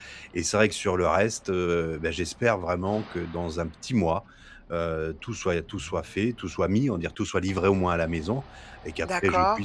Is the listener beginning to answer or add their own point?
No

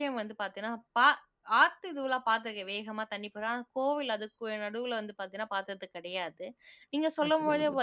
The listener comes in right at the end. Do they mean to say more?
No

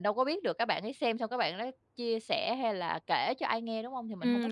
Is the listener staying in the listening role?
No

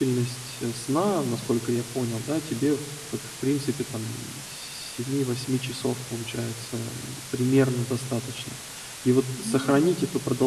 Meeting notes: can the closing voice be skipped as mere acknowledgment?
Yes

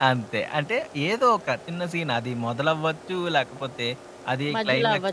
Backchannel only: Yes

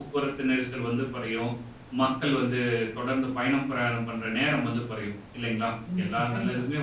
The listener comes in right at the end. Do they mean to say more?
No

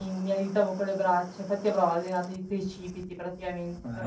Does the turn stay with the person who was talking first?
No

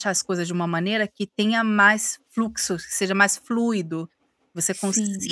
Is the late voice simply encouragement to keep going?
Yes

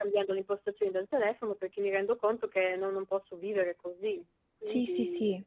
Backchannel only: No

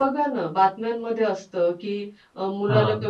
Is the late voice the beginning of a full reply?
No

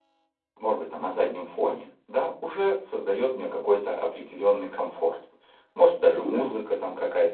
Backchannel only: Yes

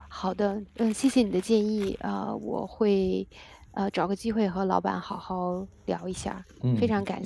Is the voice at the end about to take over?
Yes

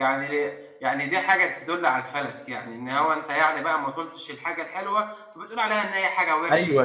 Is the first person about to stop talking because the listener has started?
Yes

